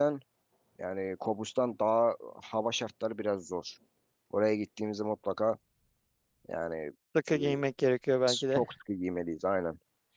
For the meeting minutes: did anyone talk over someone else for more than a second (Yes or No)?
No